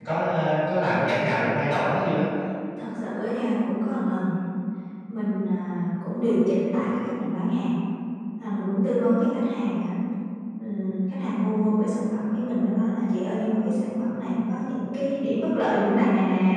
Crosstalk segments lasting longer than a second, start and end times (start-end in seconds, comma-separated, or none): none